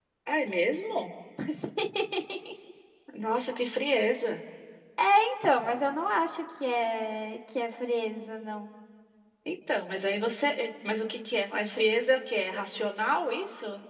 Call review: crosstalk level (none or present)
none